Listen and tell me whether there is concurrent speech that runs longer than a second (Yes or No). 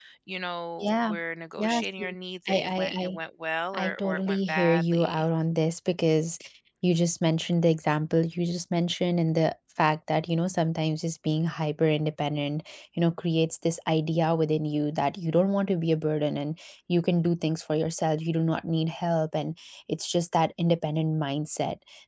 Yes